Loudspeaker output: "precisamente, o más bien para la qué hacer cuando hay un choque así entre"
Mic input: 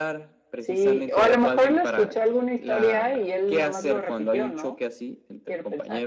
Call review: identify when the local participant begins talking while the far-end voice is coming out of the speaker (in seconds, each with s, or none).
0.6 s